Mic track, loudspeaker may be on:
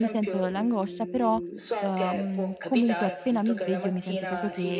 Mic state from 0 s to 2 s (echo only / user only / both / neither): both